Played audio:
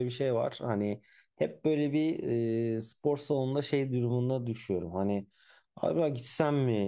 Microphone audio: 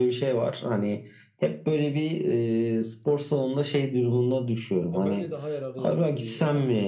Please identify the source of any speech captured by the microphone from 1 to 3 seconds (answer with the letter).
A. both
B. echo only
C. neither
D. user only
B